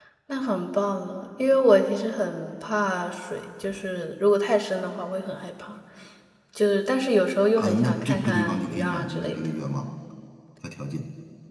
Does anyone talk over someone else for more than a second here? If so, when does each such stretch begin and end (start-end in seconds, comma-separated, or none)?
7.6-9.5